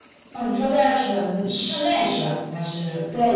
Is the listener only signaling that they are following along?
No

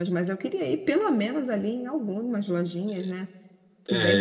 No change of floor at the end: No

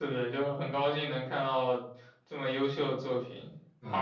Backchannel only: Yes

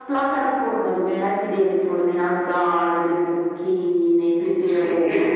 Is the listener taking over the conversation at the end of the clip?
No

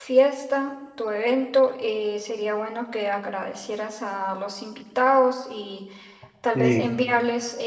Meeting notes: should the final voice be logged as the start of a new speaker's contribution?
No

